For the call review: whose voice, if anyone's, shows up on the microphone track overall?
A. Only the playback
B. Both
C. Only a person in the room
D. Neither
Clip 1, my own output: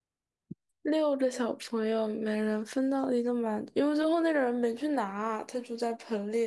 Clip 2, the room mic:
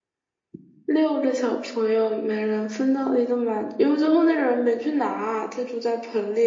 A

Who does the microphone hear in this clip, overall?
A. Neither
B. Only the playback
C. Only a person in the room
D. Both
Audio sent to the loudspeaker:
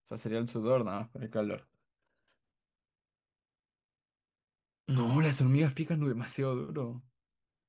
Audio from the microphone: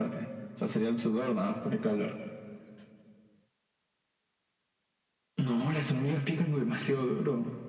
B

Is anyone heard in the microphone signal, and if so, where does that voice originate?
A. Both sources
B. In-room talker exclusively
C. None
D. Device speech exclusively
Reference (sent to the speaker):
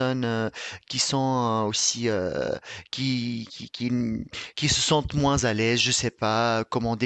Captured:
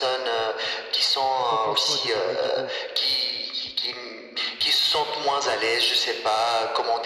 A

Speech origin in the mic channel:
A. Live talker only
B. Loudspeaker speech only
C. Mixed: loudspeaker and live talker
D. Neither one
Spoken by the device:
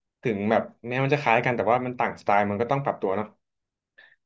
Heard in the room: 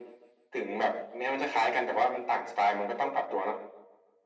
B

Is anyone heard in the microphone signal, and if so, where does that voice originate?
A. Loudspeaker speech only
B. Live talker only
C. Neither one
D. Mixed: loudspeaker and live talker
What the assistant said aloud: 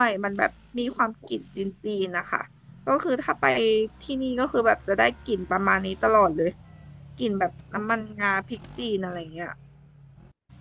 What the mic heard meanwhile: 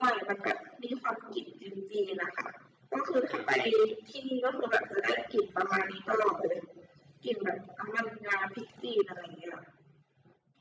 D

